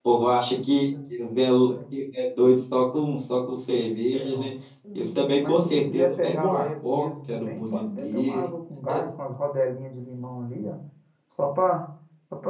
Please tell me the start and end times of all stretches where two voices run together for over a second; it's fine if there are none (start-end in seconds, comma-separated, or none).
5.0-8.4